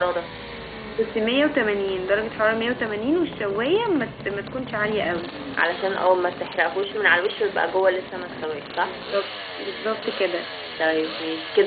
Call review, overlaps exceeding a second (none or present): none